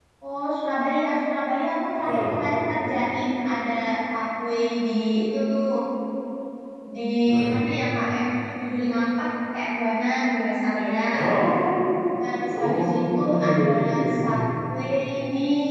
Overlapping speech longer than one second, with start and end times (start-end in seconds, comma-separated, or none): 12.2-14.3